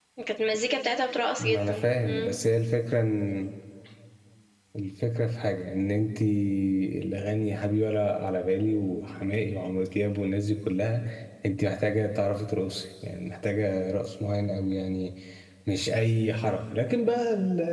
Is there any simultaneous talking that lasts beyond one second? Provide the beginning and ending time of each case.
none

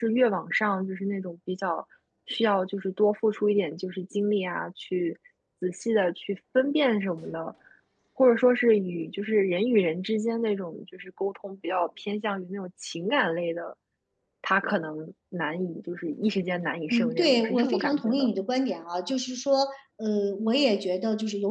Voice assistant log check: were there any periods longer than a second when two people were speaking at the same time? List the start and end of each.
16.9-18.3

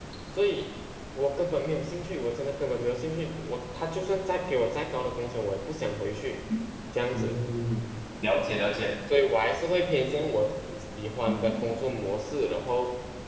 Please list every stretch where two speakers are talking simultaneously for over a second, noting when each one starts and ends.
none

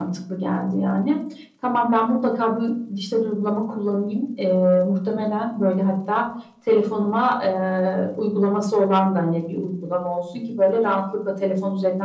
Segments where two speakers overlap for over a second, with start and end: none

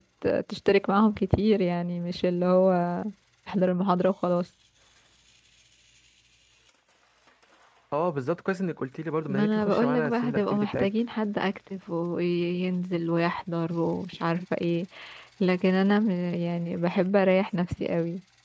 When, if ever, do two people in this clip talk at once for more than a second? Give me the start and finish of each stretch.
9.3-10.9

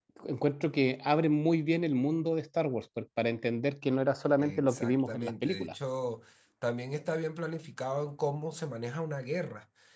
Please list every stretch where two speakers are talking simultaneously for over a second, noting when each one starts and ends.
4.4-5.7

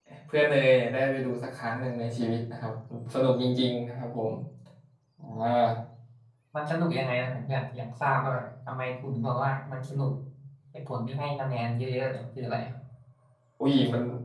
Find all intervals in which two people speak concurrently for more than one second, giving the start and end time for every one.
none

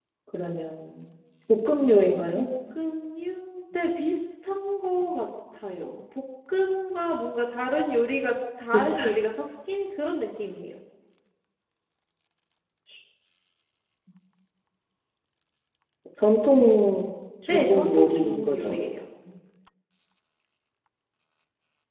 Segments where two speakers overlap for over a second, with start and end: 17.5-18.8

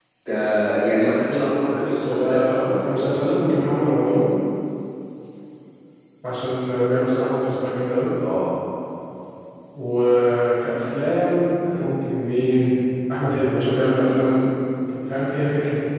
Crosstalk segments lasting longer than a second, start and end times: 1.7-3.3

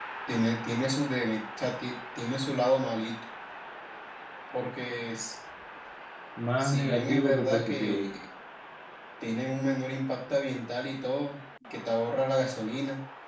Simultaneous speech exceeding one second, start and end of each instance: 6.6-8.0

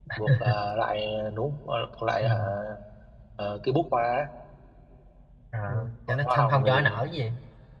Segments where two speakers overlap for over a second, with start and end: 5.7-7.0

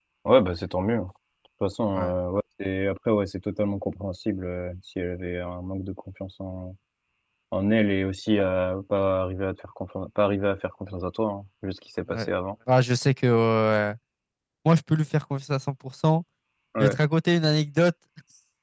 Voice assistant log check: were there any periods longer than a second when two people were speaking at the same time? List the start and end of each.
none

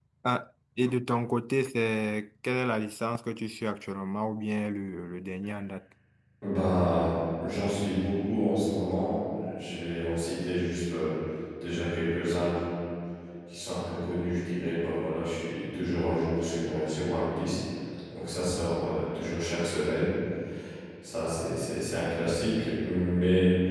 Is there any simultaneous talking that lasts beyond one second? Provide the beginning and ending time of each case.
none

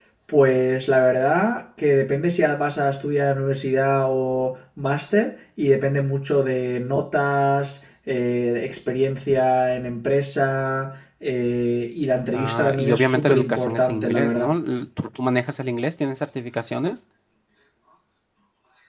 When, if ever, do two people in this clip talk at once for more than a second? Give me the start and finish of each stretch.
12.3-14.5

